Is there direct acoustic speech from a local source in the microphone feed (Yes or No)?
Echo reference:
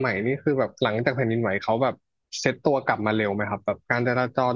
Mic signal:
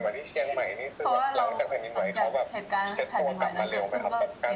Yes